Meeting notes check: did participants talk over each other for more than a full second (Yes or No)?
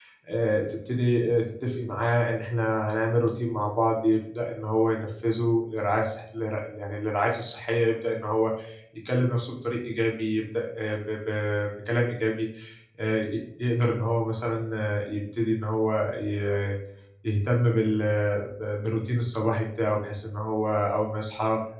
No